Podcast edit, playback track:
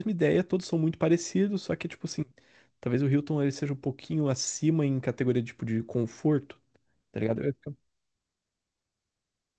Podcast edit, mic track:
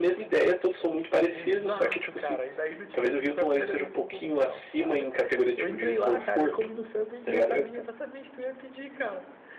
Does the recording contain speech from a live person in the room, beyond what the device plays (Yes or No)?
Yes